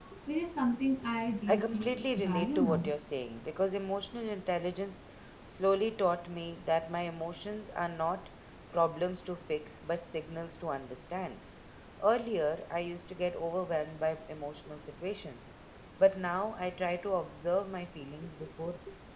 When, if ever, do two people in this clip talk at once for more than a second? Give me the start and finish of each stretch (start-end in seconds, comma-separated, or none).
1.5-2.9